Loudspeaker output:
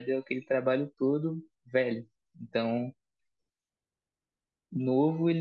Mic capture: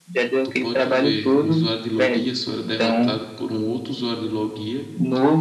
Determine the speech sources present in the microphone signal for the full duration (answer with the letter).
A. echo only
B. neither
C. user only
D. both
D